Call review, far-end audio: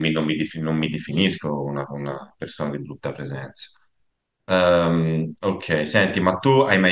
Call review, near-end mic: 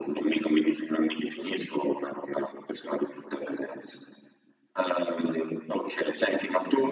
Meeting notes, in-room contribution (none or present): none